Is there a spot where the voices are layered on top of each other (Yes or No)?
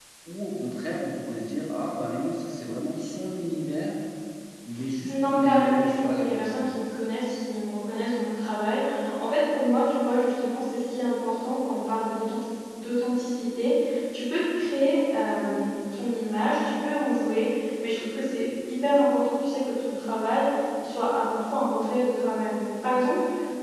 Yes